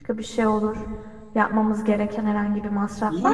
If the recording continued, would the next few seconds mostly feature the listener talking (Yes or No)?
Yes